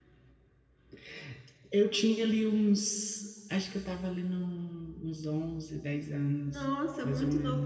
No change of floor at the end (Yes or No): No